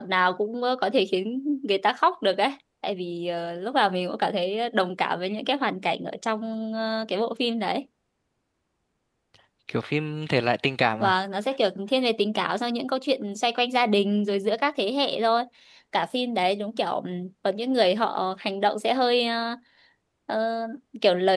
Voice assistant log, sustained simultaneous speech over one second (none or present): none